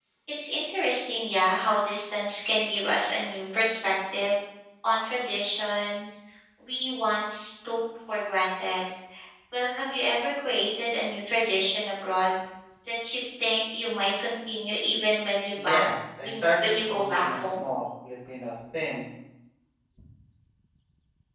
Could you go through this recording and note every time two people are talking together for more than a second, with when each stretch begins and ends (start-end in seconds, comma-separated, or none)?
16.2-17.6